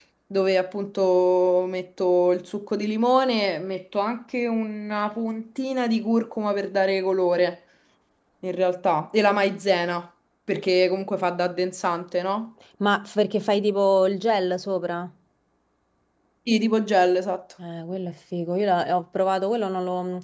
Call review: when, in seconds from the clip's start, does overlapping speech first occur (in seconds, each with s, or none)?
none